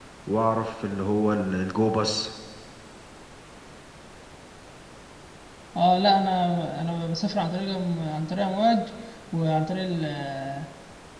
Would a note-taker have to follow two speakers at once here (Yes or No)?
No